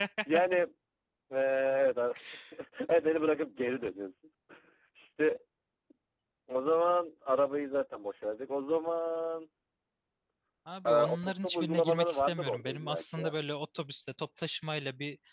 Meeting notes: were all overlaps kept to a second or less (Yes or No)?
No